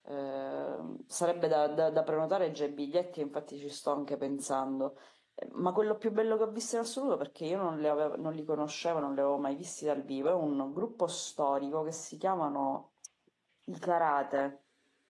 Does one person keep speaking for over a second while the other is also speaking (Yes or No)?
No